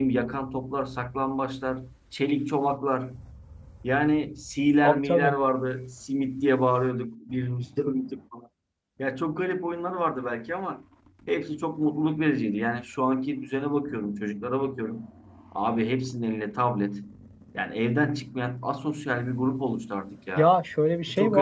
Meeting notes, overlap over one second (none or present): none